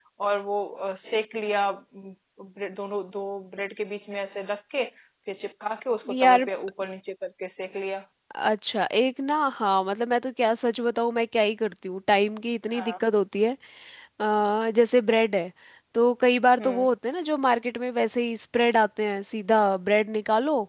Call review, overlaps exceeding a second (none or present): none